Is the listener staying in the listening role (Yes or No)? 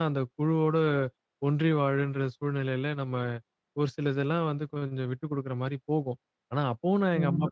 Yes